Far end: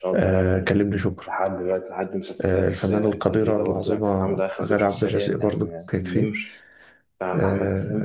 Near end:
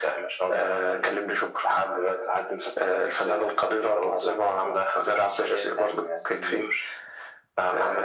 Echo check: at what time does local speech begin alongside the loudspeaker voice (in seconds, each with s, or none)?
none